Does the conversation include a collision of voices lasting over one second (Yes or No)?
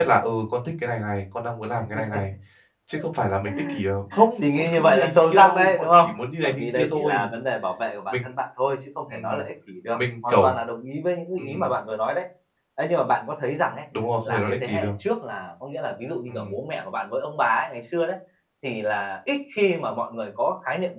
Yes